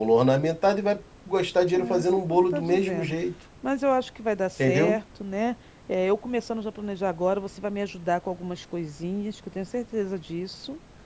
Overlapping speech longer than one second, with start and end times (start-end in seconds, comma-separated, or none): 1.7-3.2